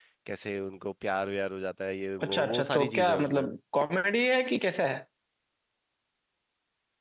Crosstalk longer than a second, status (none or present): present